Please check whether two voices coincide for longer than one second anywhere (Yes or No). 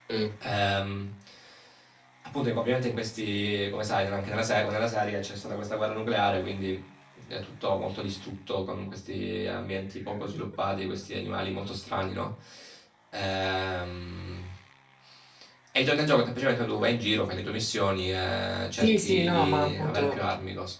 Yes